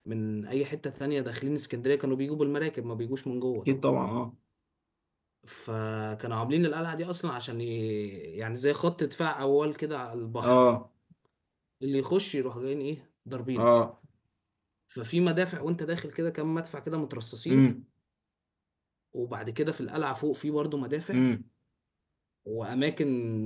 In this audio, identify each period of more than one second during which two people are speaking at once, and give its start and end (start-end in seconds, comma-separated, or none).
none